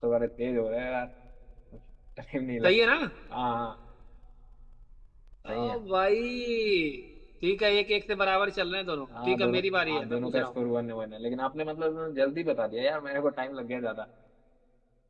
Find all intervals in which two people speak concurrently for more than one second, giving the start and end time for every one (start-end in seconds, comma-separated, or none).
9.2-10.4